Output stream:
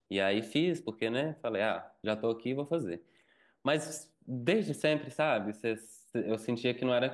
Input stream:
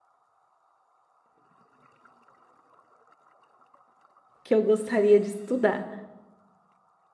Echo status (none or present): none